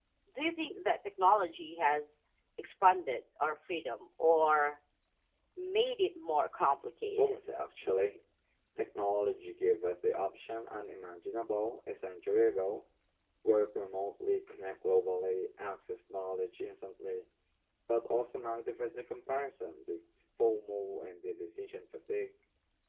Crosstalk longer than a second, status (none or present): none